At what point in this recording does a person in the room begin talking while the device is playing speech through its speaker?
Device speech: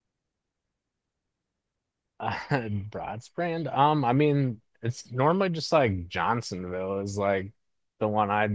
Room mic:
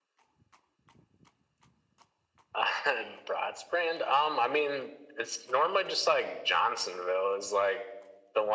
none

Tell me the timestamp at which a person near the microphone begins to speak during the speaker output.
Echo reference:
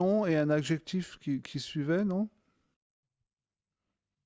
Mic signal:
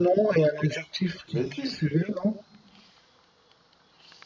1.3 s

